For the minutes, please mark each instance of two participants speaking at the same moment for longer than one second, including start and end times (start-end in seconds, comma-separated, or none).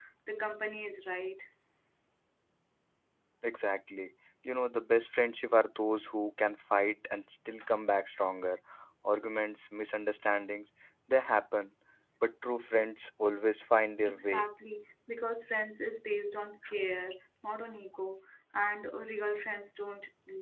none